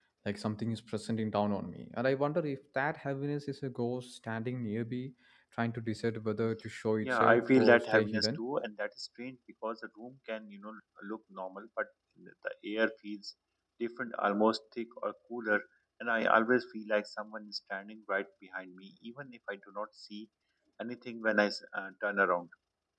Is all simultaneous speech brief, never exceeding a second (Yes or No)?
No